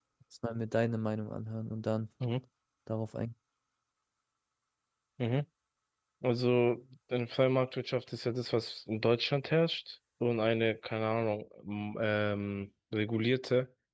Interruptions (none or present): none